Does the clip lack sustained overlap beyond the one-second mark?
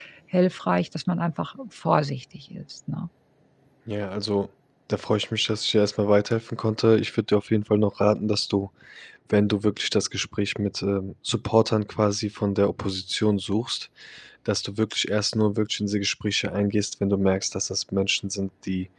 Yes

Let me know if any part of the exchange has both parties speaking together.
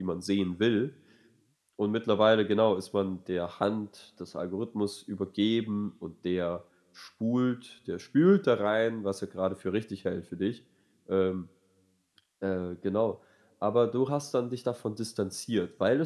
No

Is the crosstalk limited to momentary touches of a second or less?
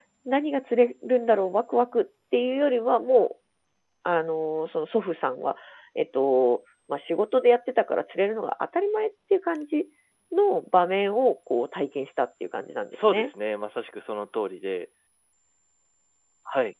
Yes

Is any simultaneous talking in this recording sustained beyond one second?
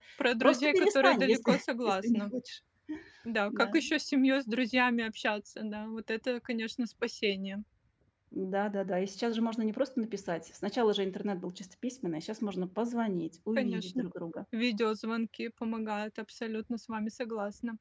Yes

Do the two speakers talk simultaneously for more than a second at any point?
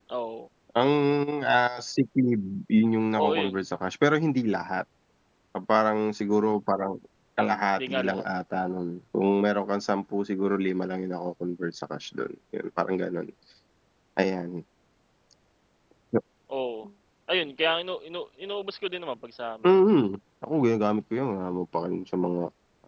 No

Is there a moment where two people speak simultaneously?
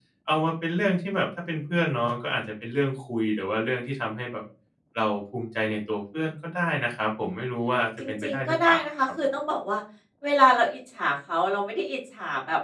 Yes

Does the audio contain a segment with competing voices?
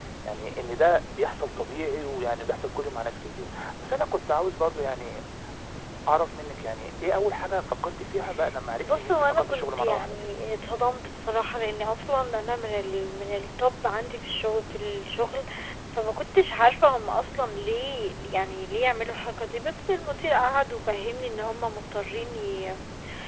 Yes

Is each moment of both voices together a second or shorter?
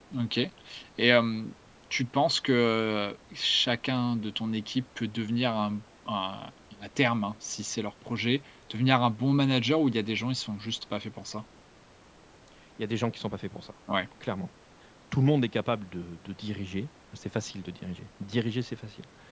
Yes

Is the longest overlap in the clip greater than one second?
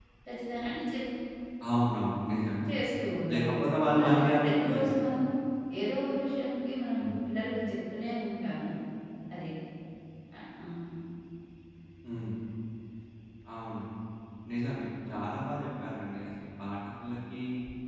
Yes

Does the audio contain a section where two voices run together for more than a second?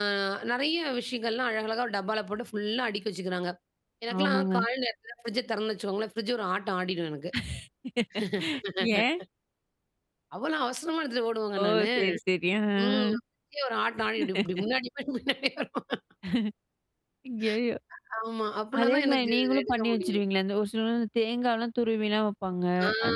Yes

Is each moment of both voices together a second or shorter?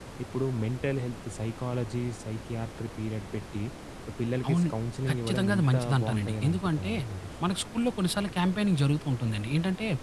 No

